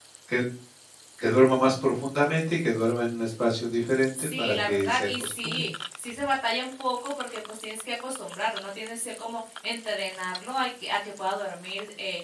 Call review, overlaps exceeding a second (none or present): present